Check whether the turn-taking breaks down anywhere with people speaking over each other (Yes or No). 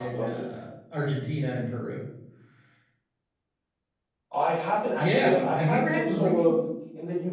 Yes